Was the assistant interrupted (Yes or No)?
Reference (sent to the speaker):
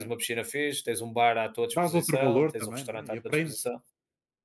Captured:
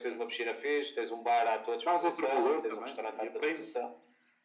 No